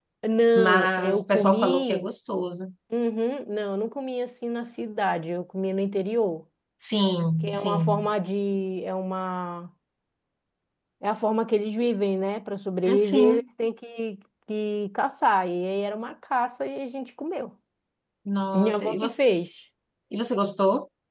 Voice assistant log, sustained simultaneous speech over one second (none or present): present